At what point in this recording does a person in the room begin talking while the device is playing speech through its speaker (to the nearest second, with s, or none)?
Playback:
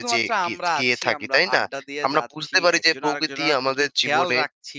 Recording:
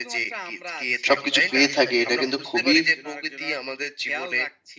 1 s